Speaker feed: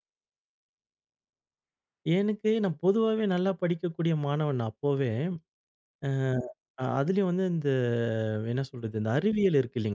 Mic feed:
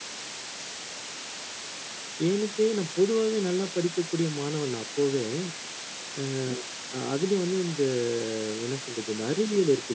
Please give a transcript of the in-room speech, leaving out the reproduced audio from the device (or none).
none